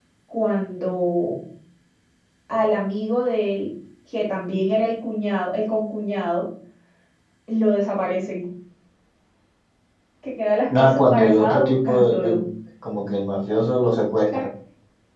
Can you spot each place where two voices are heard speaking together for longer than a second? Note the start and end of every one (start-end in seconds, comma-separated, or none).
10.8-12.4